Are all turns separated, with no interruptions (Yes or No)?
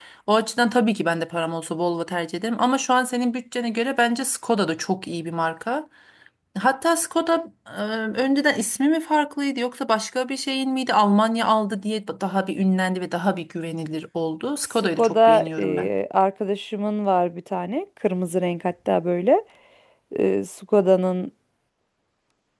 No